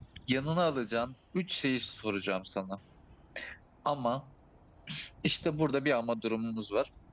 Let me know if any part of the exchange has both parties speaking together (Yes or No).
No